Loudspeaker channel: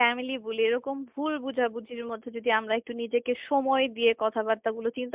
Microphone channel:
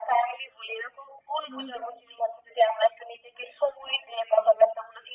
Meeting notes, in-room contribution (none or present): present